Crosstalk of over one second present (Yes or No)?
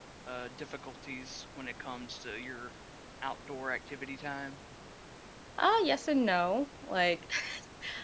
No